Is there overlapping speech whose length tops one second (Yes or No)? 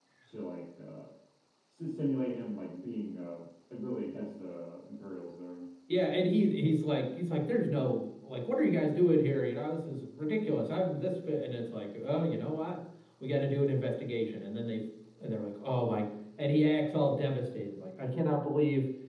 No